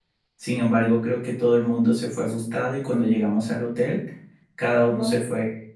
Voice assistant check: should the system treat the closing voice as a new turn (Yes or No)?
No